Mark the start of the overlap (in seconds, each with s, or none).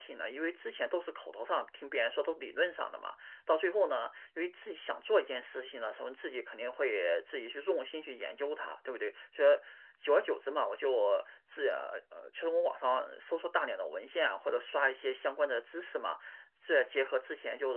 none